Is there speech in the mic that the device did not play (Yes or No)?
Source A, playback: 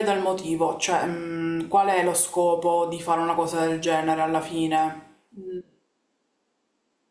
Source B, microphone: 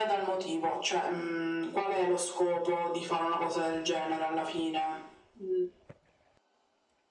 No